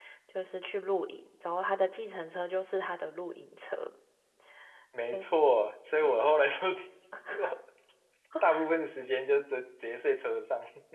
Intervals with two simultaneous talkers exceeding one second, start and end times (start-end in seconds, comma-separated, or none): none